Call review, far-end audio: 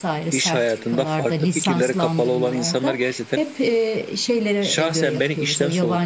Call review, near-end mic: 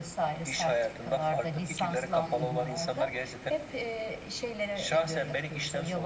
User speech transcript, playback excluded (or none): Hı hı.